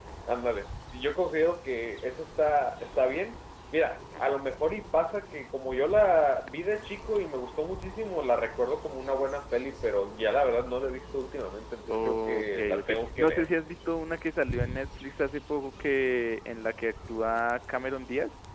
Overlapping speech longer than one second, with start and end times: 11.9-13.5

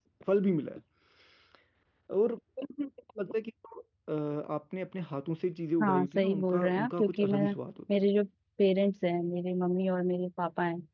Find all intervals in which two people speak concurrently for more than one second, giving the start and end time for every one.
5.8-7.5

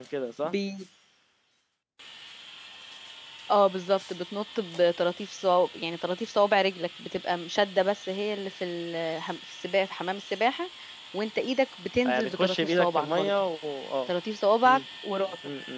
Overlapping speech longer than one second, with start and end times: 12.1-13.3

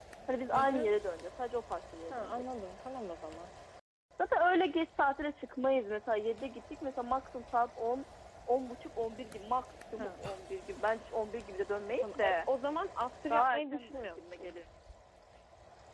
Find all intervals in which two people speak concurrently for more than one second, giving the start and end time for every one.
13.3-14.5

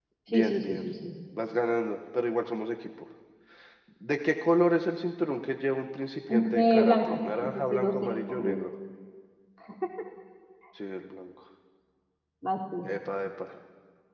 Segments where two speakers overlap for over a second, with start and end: 6.3-8.6

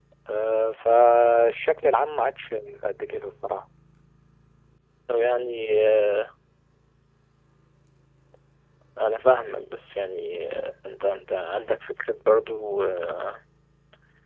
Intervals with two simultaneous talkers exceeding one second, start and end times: none

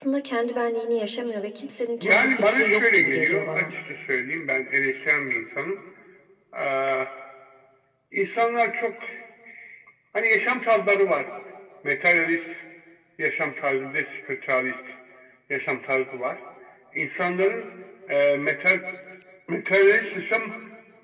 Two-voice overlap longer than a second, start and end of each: 2.0-3.7

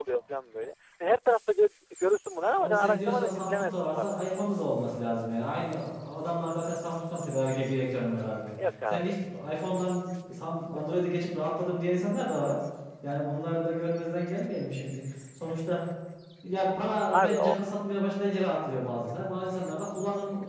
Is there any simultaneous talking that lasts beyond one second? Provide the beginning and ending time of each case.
2.6-4.2

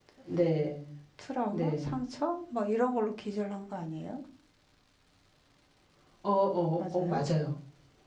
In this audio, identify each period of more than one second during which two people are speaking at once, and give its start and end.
none

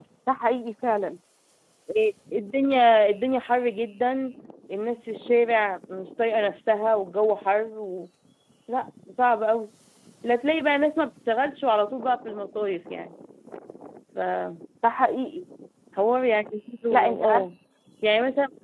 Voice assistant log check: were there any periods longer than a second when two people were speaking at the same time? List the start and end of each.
none

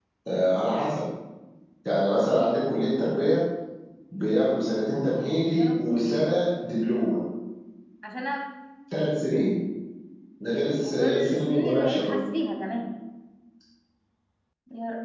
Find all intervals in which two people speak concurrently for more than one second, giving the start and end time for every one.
10.8-12.1

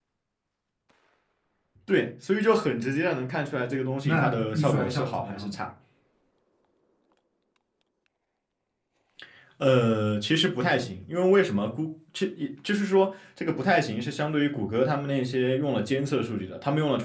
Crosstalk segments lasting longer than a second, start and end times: 4.0-5.6

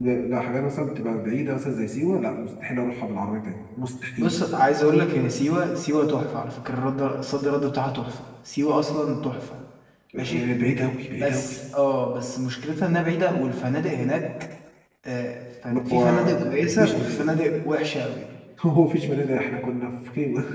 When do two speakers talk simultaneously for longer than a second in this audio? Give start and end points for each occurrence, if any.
15.9-17.5

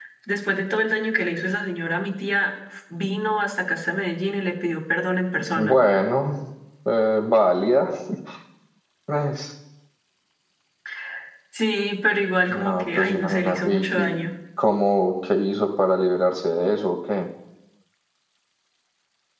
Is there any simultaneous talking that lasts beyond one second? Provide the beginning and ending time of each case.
12.5-14.1

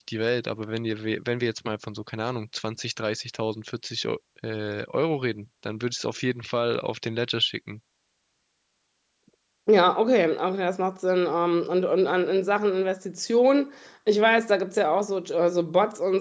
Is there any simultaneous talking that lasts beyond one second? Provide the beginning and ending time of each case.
none

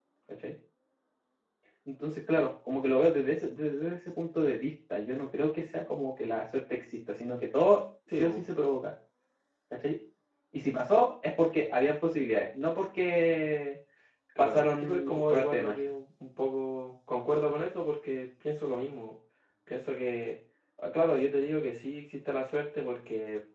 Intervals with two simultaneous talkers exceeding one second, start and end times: 14.4-15.7

